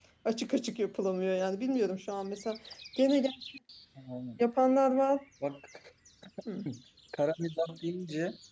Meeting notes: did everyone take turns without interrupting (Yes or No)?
Yes